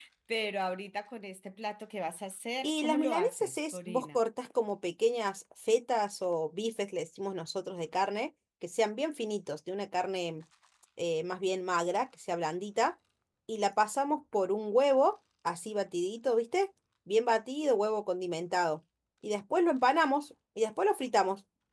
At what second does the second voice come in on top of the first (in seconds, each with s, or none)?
2.6 s